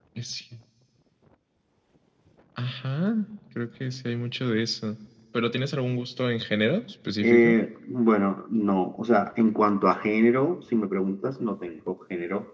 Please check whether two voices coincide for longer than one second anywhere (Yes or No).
No